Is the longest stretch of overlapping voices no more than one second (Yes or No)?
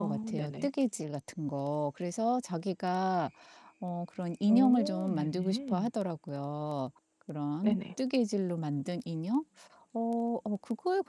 No